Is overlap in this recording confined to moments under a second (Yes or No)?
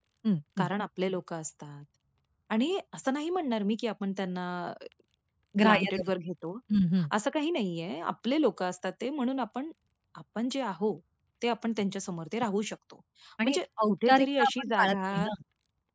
No